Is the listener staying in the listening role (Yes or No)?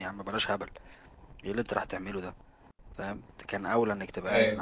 Yes